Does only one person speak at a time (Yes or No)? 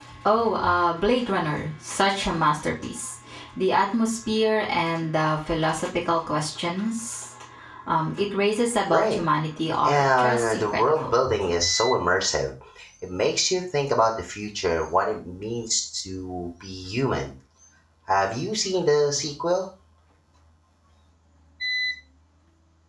No